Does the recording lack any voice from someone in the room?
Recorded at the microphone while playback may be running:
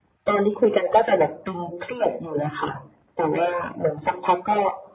Yes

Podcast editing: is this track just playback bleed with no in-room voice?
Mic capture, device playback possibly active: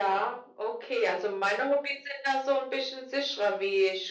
Yes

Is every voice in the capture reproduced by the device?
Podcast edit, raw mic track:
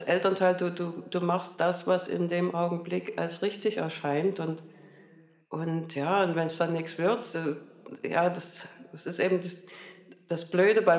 Yes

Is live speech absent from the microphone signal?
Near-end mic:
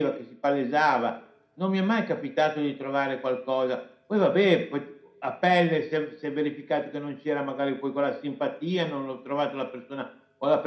Yes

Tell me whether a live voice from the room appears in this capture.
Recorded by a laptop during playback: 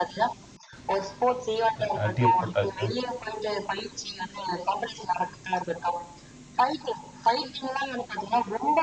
Yes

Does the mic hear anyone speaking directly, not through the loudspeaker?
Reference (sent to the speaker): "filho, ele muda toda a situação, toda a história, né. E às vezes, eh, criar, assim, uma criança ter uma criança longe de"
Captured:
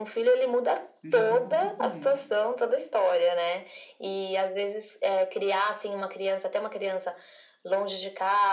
Yes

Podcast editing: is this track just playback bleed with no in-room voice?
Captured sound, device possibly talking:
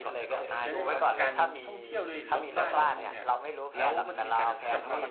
No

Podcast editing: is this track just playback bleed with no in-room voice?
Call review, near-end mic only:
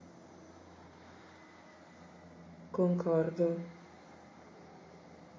No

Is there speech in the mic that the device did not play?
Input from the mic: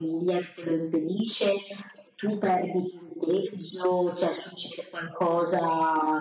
No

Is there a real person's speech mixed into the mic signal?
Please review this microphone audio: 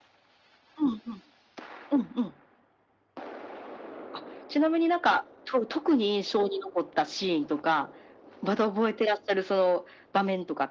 No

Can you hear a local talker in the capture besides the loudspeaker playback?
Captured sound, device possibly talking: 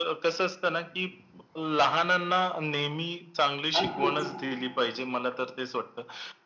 Yes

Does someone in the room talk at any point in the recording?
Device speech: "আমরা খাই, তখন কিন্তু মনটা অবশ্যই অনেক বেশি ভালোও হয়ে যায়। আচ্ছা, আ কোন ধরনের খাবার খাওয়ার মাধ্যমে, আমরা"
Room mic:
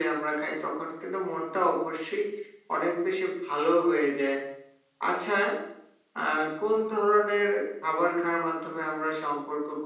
No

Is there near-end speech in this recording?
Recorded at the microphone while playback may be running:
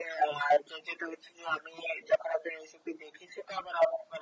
No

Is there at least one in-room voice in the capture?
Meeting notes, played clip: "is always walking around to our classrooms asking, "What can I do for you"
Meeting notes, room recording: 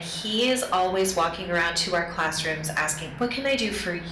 No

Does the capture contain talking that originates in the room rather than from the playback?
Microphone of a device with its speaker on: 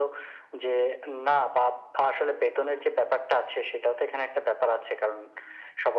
No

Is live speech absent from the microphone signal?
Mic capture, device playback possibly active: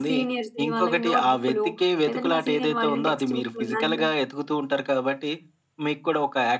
Yes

